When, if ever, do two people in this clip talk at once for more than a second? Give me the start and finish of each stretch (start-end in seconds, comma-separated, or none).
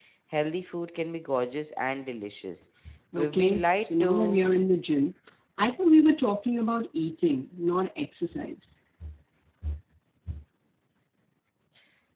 3.2-4.4